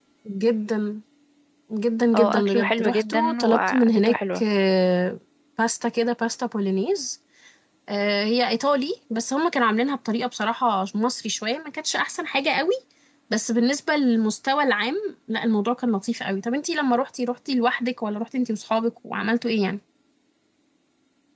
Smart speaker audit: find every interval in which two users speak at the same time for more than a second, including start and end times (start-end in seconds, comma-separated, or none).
2.1-4.4